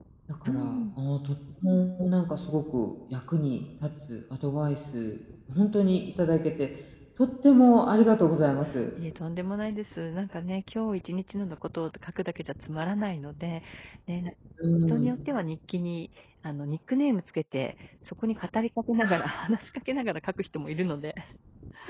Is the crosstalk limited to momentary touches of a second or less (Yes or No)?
Yes